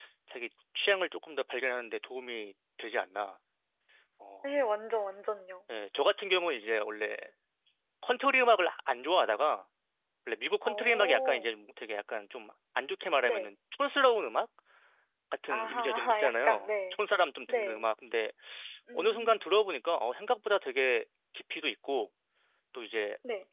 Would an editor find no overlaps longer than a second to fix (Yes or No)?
No